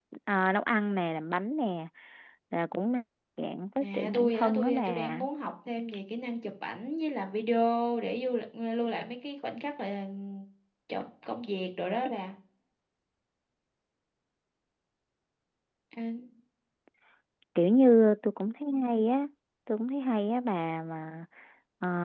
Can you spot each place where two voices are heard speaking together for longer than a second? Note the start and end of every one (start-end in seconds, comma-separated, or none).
3.8-5.2